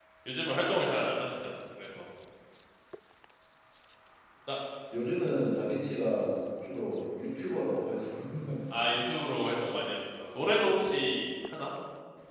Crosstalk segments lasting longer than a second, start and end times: none

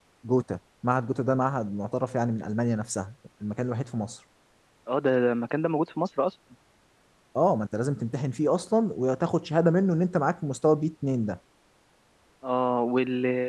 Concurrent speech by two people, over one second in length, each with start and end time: none

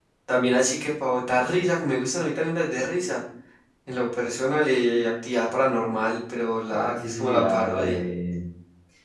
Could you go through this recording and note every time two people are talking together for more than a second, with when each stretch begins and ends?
6.7-8.0

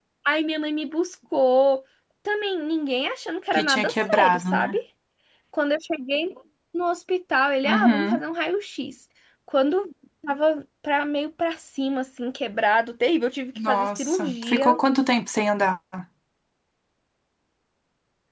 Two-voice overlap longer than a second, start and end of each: 3.5-4.8, 13.6-14.8

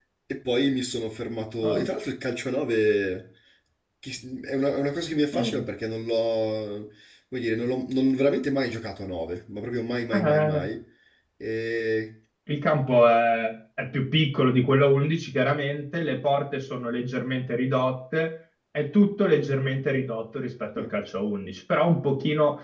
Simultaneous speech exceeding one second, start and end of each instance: none

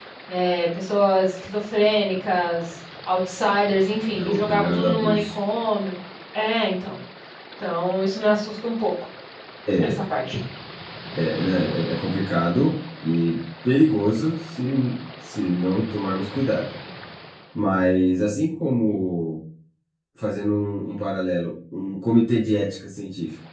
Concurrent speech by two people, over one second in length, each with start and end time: 4.1-5.3

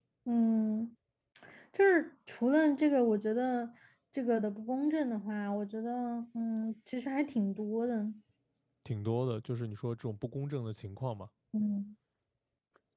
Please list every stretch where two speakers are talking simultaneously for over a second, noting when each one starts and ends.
none

